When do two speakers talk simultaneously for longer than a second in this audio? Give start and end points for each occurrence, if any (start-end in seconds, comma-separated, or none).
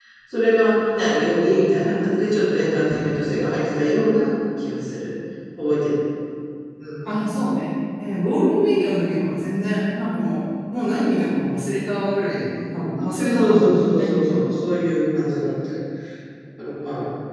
13.0-14.5